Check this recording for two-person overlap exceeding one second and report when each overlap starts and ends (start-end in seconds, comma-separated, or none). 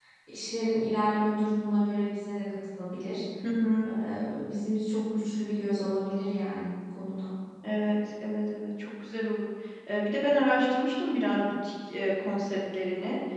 none